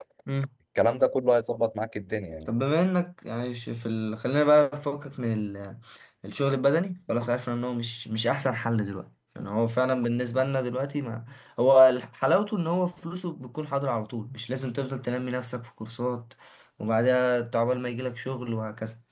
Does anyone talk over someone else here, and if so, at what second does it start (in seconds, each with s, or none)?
none